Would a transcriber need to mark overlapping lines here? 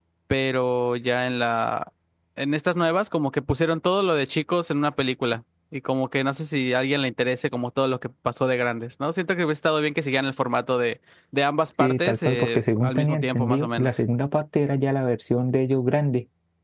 Yes, from 11.8 s

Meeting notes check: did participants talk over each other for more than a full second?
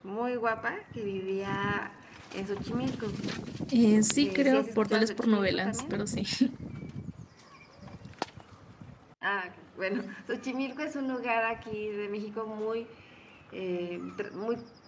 Yes, from 4.2 s

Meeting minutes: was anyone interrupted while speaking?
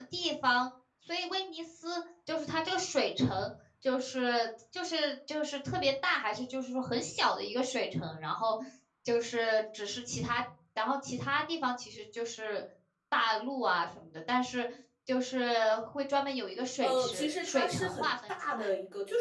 Yes, from 16.8 s

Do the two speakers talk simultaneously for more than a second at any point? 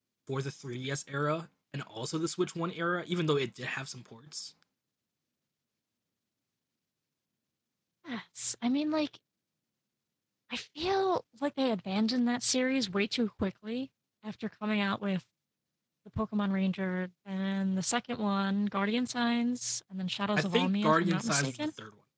Yes, from 20.4 s

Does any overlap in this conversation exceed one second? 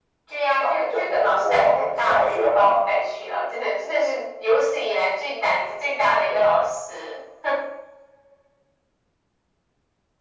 Yes, from 0.6 s

